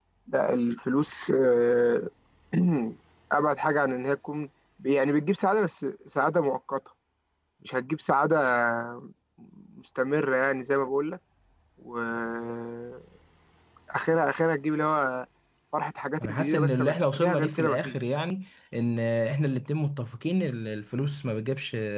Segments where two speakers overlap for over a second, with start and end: 16.2-18.0

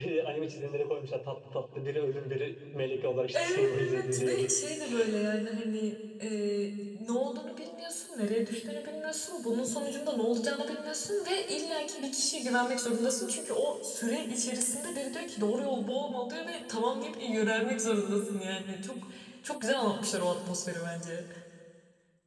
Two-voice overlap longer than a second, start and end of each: 3.3-4.5

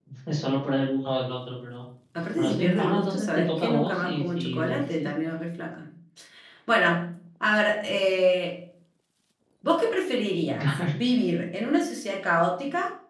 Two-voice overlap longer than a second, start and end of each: 2.4-5.1

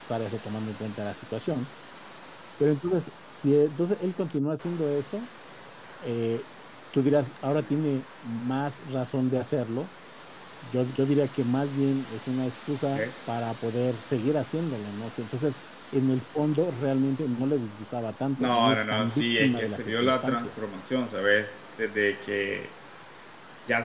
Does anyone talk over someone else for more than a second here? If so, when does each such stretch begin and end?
18.4-20.5

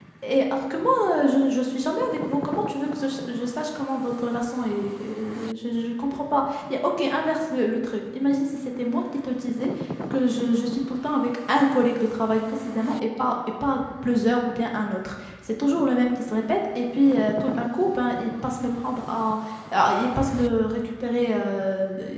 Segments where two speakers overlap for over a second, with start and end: none

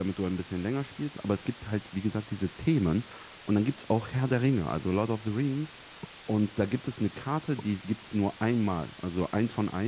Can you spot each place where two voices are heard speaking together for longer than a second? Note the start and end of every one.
none

